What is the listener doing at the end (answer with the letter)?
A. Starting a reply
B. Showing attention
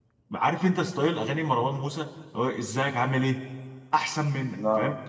B